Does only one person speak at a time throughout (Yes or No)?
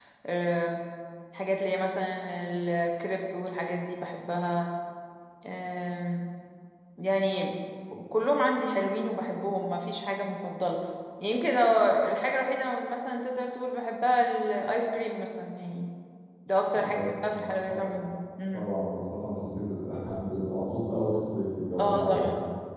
No